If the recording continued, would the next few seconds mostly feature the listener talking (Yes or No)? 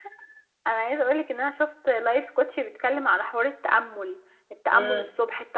No